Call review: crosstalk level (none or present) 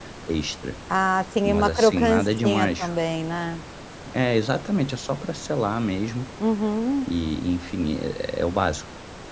present